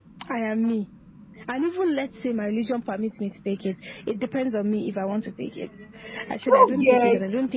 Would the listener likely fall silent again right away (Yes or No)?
Yes